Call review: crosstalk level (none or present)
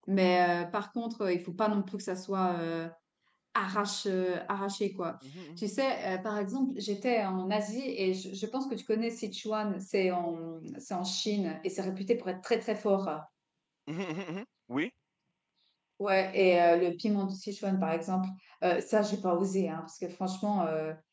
none